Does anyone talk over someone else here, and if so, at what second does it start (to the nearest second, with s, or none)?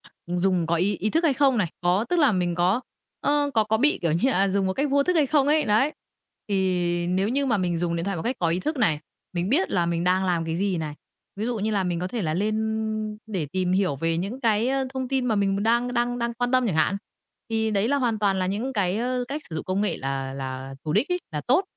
none